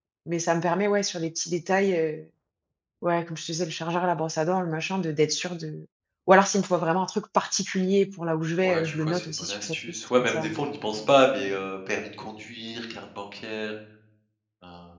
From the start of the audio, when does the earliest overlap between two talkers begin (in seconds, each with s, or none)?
8.6 s